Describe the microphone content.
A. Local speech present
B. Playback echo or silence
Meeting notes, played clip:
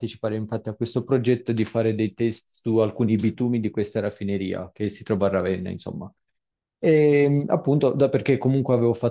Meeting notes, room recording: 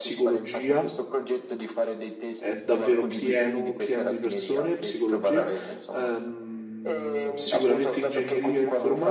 A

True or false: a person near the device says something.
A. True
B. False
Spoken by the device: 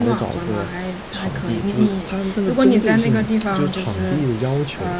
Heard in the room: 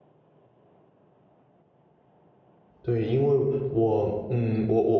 A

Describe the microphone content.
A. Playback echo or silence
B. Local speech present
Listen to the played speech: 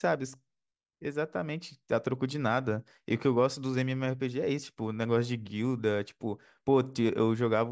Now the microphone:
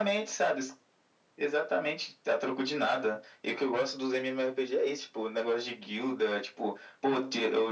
A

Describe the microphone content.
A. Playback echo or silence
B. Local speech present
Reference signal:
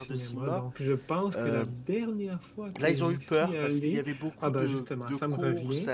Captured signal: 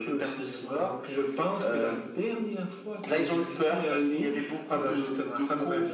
A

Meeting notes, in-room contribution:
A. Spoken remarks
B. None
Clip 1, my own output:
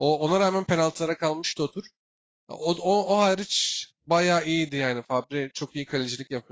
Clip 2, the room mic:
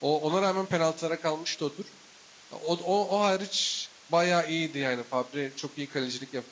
B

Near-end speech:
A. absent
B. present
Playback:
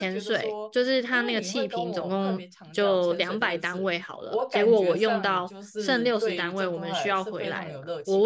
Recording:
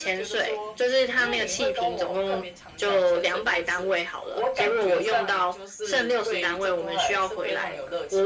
A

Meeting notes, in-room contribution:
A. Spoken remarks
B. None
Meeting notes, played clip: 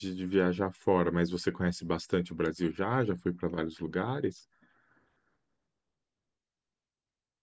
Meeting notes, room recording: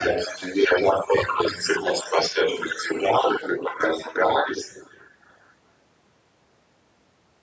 B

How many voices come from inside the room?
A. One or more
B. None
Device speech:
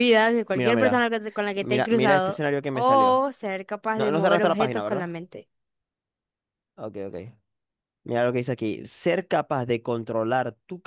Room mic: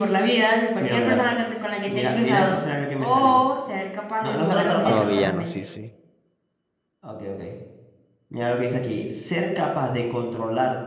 A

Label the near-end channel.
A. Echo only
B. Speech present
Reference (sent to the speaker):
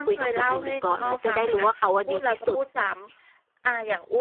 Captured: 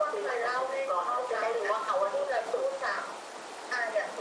A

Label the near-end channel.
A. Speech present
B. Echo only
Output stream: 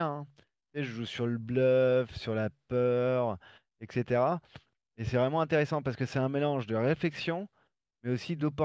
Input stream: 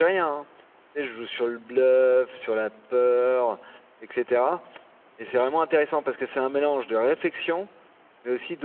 B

